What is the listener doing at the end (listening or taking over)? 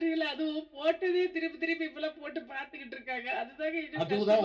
taking over